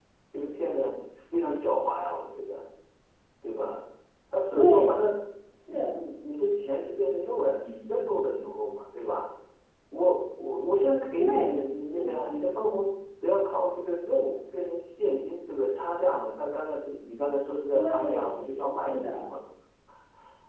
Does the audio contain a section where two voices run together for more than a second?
Yes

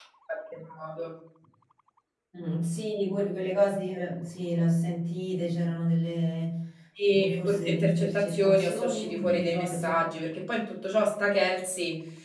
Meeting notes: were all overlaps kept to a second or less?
No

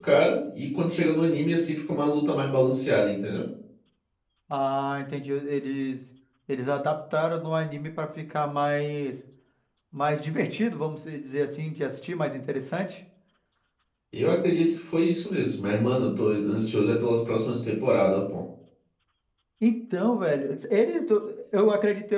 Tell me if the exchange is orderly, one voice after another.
Yes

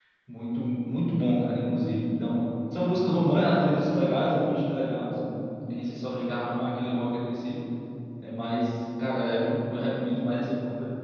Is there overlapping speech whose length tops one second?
No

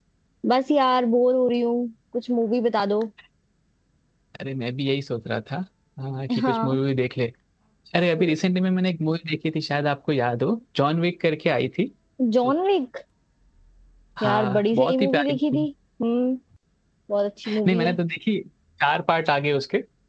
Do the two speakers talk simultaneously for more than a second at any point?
Yes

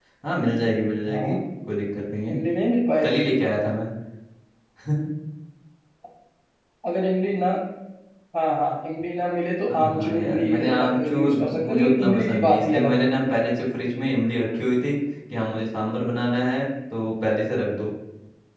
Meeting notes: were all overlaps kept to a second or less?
No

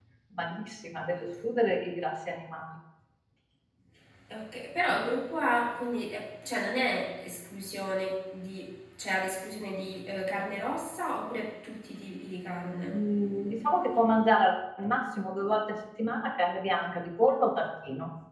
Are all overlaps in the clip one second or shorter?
Yes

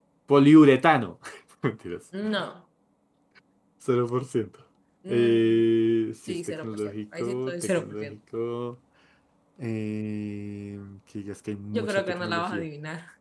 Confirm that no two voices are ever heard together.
No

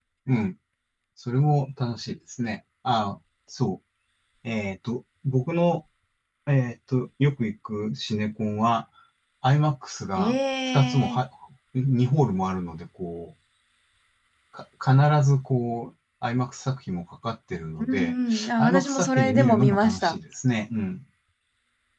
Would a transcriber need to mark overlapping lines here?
Yes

